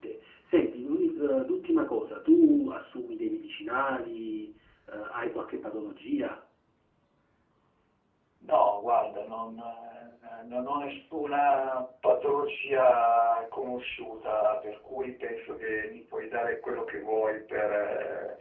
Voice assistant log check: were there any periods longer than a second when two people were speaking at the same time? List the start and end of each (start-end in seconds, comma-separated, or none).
none